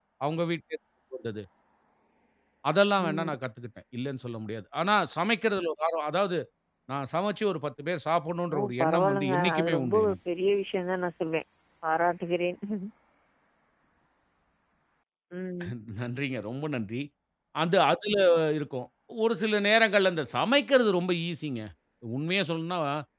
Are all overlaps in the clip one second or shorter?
No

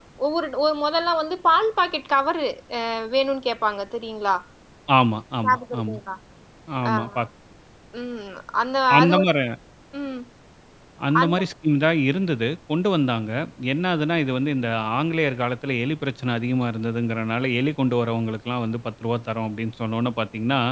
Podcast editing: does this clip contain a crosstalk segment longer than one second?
No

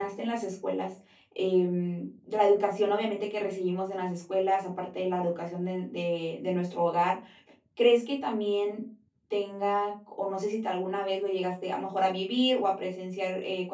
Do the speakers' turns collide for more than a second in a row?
No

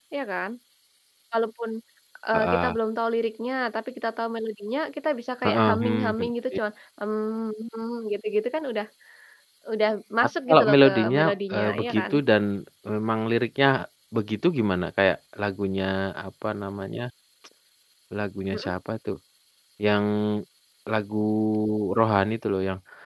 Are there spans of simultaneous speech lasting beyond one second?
Yes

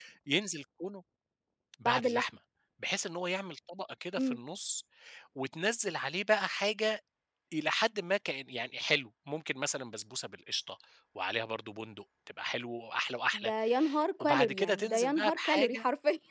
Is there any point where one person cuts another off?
Yes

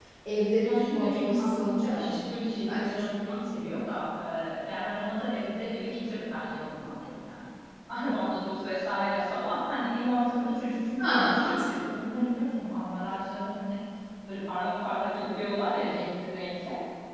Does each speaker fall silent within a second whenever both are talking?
No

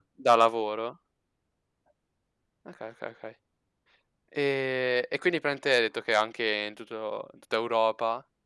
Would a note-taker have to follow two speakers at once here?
No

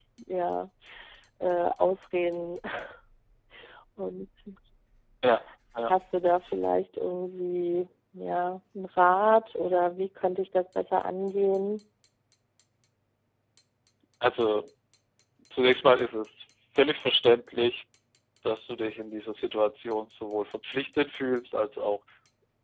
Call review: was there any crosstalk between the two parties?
No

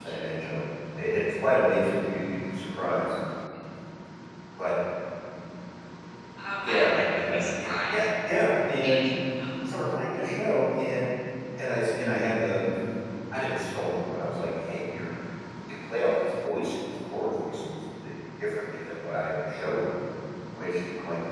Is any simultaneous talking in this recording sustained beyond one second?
Yes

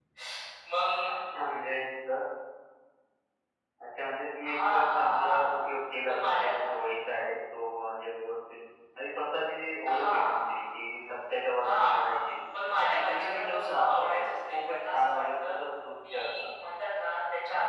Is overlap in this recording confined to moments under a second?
No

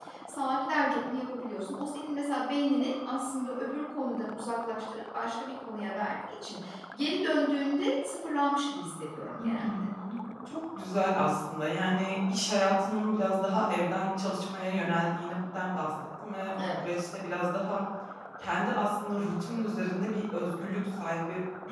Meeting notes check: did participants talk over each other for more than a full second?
No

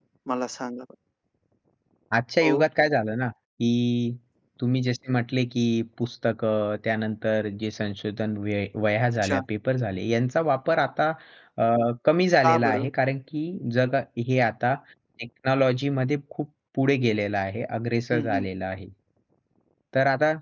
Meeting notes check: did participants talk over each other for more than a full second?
No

